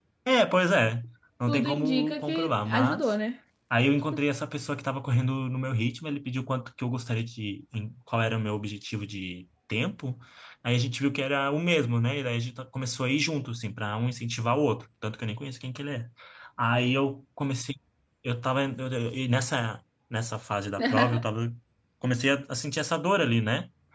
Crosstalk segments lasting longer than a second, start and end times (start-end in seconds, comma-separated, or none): 1.5-3.1